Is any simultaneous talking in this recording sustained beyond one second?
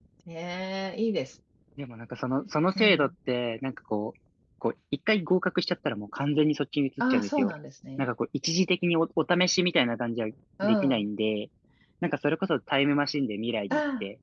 No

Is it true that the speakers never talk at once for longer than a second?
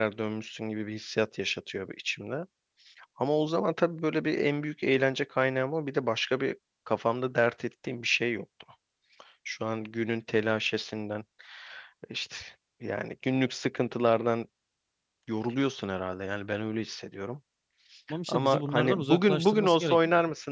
No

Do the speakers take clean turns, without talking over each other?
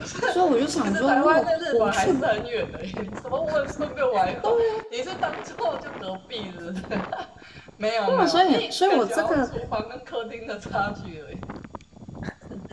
No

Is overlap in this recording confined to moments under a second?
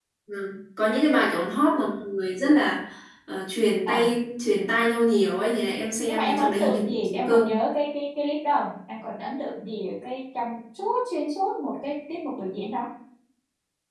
No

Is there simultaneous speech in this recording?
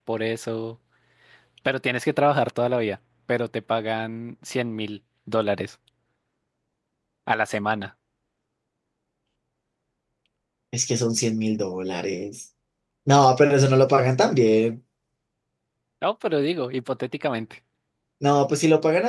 No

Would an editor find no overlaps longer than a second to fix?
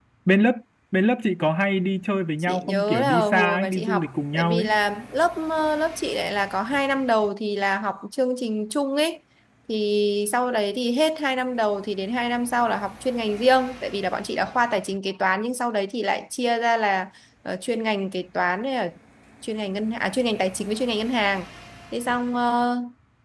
No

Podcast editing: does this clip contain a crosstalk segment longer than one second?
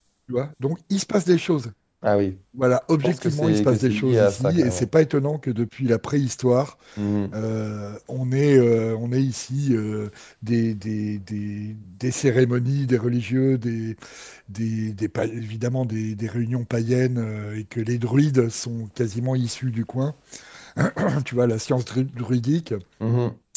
Yes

